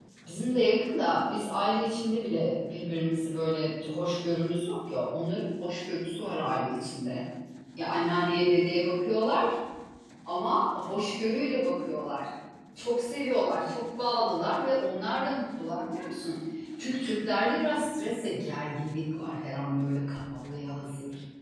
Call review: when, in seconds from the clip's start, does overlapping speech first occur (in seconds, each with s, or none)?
none